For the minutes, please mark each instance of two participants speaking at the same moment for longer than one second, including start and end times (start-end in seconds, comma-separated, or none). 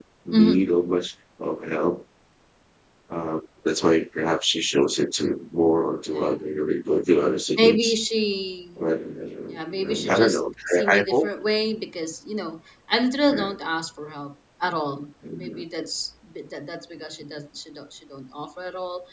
9.6-11.3